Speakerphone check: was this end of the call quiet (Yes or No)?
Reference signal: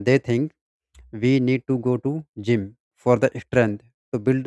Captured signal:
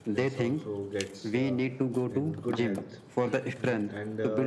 No